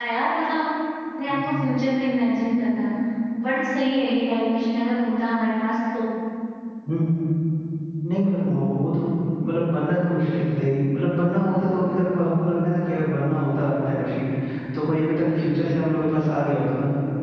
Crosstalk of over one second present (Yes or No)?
No